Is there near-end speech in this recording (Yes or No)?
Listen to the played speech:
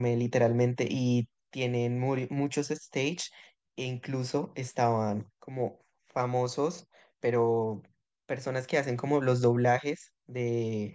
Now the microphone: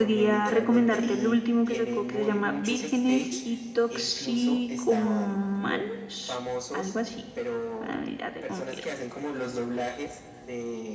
Yes